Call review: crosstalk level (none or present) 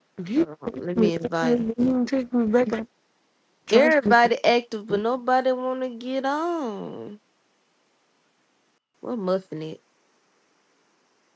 present